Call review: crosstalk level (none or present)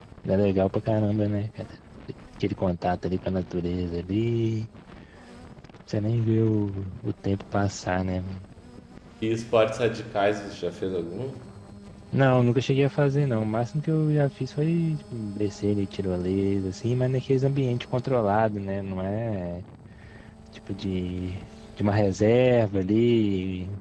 none